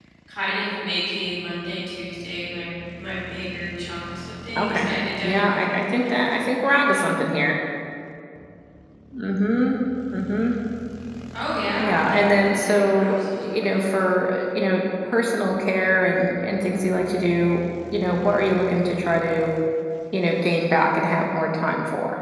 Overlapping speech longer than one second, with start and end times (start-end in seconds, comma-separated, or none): 5.2-7.1, 11.8-13.9